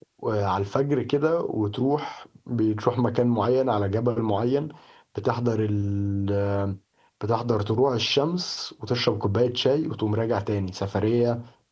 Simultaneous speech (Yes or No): No